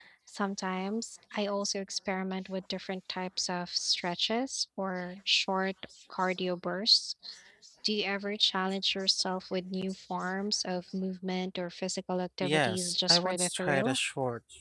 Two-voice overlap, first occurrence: 12.4 s

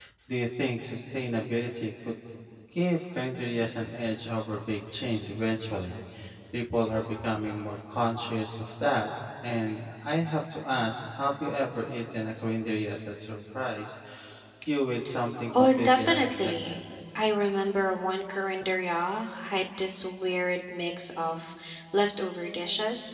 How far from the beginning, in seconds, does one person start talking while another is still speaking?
15.5 s

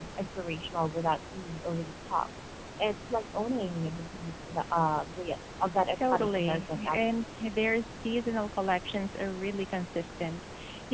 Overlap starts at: 5.9 s

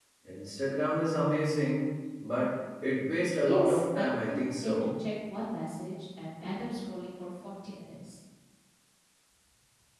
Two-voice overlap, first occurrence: 3.4 s

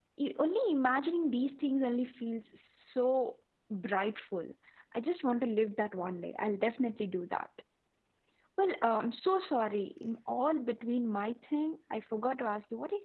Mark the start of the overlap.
none

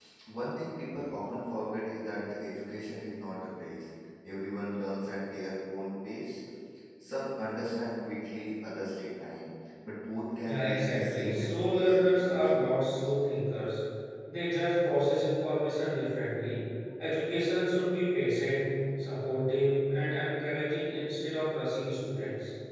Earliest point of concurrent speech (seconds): 10.4 s

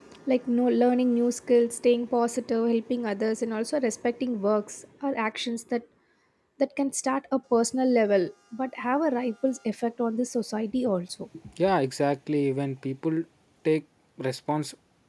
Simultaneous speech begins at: none

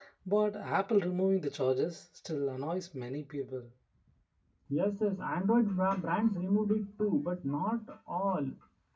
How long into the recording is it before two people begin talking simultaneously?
none

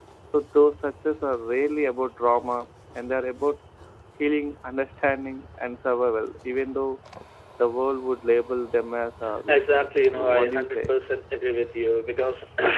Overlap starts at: 9.5 s

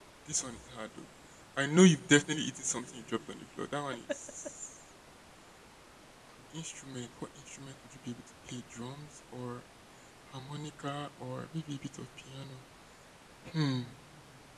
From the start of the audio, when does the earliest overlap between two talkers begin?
none

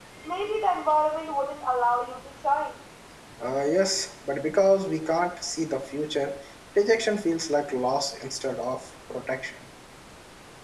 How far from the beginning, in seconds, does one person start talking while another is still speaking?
none

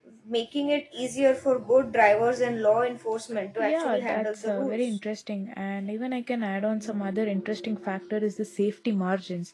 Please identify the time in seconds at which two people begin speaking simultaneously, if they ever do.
3.6 s

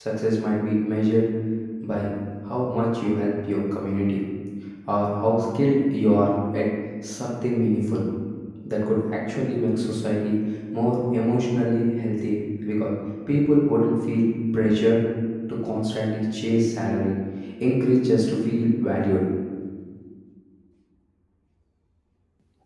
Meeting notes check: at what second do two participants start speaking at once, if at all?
none

